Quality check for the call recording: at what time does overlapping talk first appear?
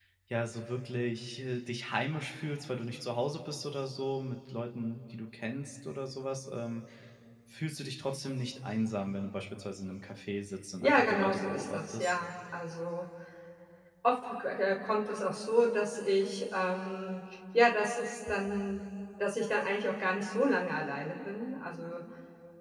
10.8 s

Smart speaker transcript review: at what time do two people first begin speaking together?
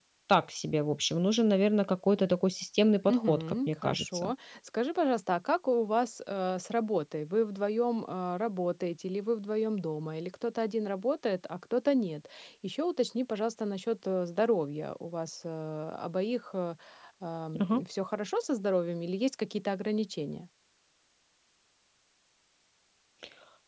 3.1 s

